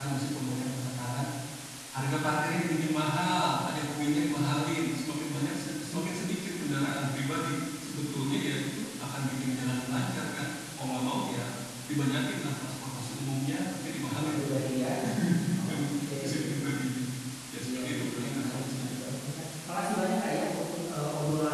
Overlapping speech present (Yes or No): Yes